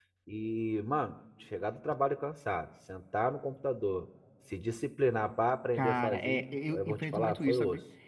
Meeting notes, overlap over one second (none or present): present